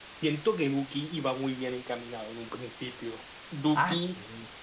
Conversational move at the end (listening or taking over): taking over